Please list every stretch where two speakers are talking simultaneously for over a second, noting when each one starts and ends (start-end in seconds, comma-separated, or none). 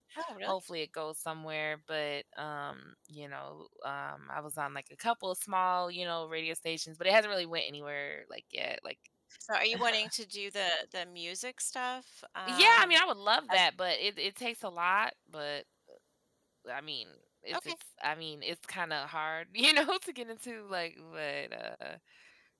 none